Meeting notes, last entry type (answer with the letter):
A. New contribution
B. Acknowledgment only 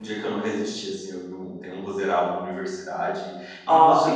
B